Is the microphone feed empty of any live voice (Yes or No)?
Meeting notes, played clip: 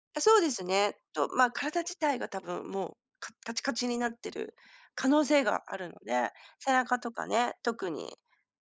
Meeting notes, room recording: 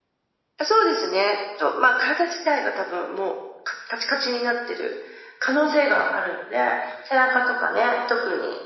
Yes